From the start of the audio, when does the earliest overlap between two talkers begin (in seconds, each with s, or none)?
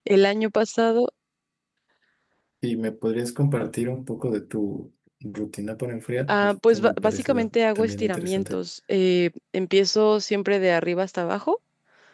6.3 s